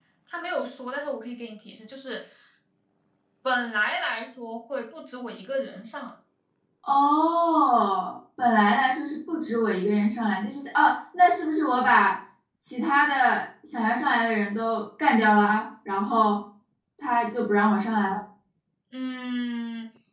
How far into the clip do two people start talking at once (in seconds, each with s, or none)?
none